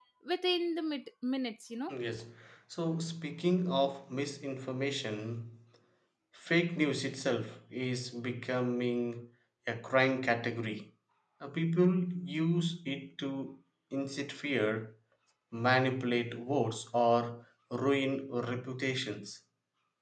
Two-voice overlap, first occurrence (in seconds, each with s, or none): none